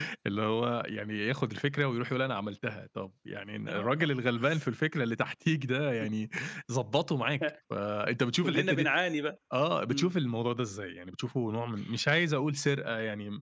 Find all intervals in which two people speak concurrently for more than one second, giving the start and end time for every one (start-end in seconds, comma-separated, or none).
none